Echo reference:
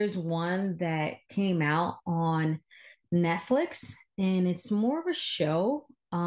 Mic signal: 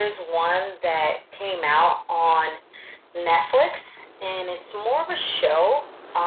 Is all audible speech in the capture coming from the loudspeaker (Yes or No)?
Yes